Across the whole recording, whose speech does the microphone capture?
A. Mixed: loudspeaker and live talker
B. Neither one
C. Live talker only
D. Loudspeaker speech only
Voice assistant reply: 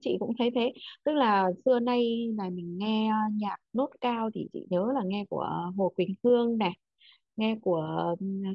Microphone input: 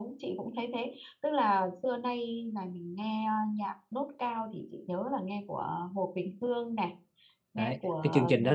A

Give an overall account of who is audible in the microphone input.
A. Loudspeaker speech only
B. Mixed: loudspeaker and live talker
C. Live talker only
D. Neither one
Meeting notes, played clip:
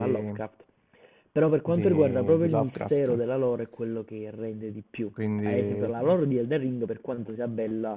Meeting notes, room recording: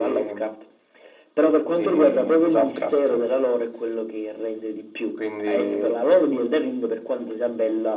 A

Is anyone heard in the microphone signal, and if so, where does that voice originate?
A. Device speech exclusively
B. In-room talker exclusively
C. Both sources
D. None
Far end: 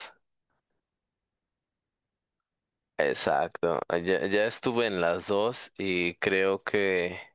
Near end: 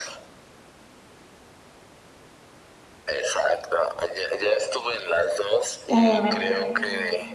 C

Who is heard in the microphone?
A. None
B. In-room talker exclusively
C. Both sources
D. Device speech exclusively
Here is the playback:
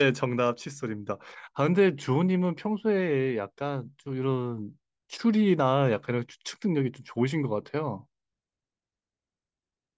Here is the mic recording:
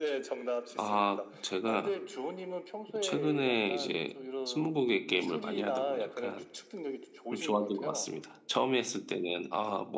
C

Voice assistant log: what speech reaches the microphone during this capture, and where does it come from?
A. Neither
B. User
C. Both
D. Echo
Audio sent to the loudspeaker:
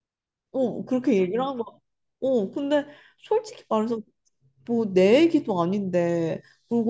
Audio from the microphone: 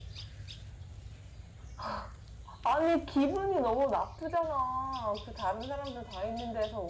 B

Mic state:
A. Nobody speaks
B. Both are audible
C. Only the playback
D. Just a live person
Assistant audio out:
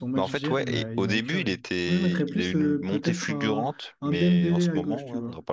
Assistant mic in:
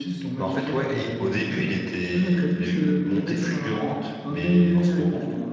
C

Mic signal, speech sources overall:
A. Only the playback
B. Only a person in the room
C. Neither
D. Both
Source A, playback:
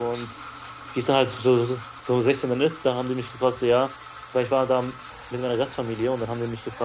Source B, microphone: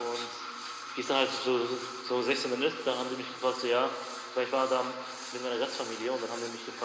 A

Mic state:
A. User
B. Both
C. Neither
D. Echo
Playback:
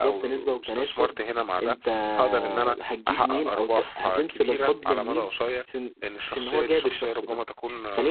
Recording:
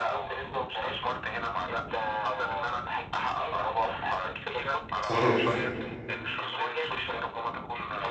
B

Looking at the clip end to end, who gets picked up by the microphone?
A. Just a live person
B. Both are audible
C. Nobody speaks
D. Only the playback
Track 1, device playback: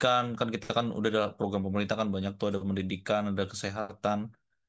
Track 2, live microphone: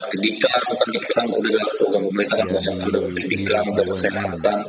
B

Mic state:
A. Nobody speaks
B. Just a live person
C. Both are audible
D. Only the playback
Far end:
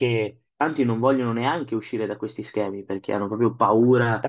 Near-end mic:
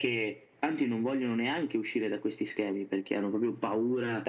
D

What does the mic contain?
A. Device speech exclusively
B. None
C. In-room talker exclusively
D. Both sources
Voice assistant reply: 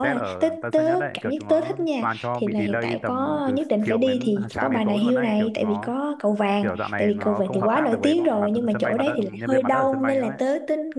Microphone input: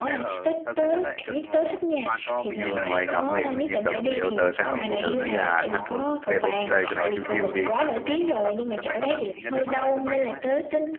D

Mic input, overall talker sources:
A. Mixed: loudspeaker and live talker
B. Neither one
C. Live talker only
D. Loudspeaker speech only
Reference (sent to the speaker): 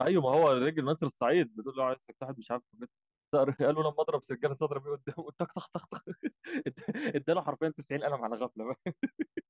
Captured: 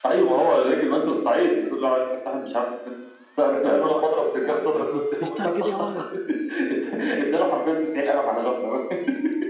A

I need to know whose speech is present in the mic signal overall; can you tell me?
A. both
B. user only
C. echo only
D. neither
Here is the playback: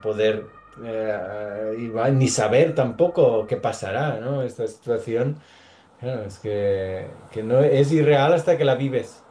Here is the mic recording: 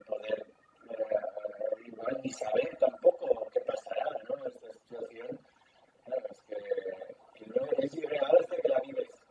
C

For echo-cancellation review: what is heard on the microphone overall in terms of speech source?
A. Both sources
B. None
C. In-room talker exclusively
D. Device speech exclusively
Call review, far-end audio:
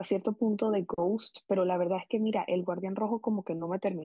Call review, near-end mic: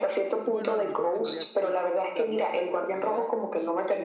A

